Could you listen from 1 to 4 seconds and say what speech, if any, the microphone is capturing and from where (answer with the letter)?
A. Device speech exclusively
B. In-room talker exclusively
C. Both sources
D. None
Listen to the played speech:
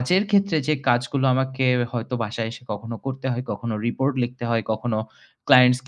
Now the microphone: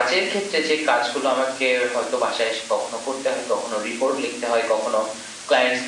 A